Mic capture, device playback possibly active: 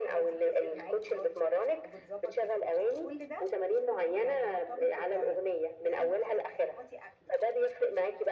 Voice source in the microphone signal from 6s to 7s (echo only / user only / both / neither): both